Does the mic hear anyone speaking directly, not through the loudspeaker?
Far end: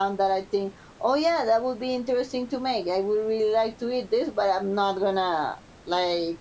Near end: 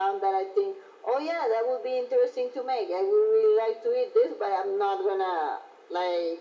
No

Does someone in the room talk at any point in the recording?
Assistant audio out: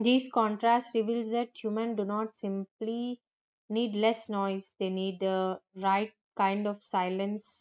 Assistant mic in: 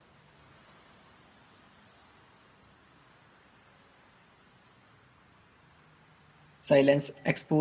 Yes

